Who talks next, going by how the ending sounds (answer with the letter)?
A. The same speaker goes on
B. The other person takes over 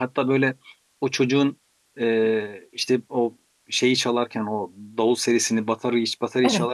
A